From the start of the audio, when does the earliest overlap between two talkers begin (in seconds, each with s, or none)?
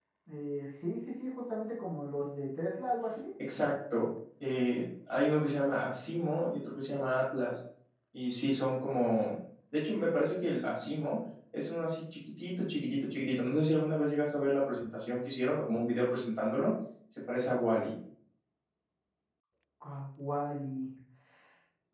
none